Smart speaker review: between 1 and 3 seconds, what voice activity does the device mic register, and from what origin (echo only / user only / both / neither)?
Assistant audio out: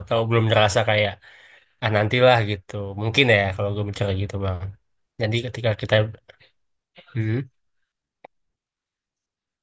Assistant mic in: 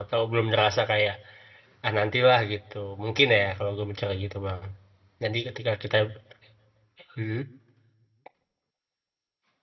echo only